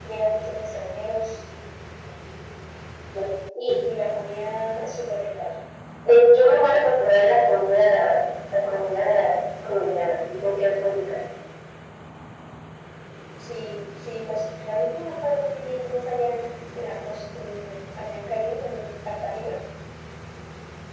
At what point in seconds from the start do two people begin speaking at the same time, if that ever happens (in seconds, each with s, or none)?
none